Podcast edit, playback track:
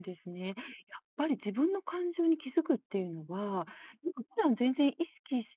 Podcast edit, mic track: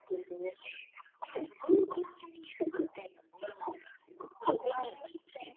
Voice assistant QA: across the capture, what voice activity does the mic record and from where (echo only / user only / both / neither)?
both